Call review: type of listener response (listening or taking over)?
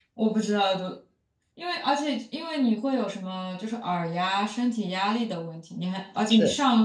listening